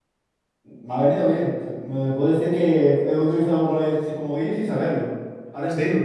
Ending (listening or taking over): taking over